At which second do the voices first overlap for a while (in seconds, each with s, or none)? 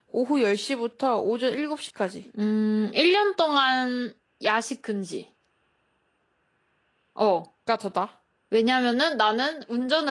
none